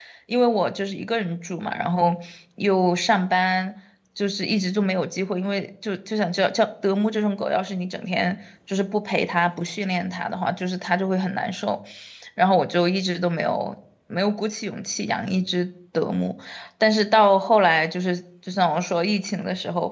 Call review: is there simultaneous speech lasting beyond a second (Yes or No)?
No